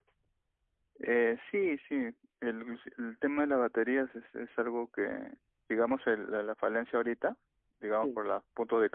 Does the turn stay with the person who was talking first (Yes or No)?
Yes